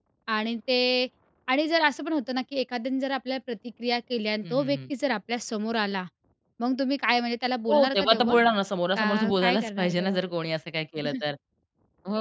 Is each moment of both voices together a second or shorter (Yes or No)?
No